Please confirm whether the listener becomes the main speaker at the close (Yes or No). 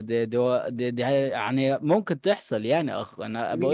Yes